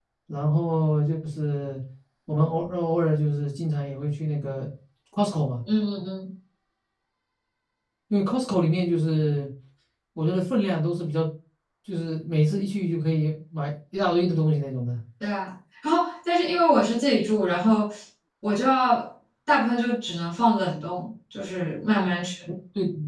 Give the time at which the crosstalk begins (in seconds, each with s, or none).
none